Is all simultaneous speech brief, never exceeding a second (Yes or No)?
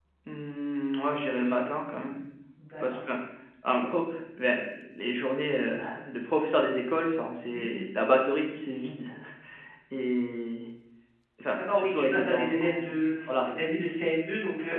No